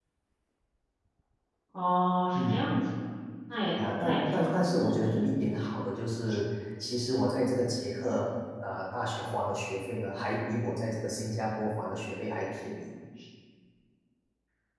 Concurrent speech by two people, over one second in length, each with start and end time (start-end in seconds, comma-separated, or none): 4.0-5.2